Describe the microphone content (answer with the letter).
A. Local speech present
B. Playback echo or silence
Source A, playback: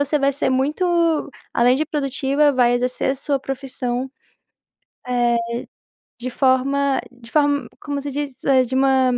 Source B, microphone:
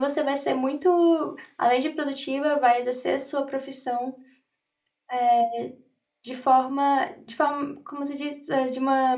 B